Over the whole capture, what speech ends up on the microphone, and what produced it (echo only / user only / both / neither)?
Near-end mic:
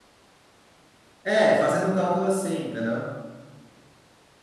user only